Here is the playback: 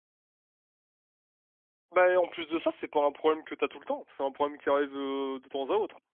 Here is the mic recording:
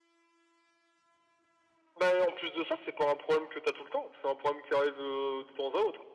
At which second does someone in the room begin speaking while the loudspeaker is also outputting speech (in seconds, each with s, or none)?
none